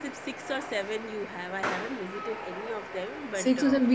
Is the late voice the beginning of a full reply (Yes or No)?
Yes